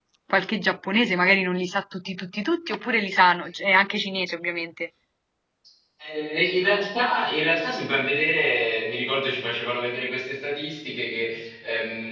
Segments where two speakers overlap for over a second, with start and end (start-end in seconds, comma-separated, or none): none